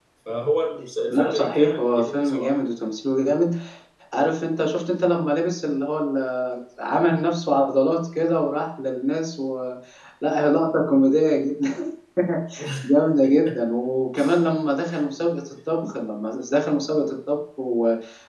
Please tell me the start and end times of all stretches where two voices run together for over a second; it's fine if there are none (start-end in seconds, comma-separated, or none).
1.1-2.5